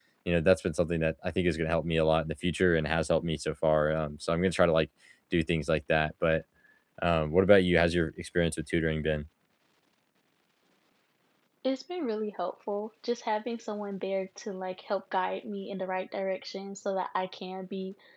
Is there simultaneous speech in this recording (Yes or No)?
No